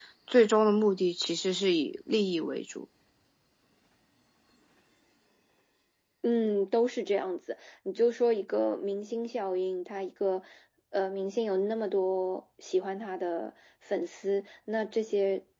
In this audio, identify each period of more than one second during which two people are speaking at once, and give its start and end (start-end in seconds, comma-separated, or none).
none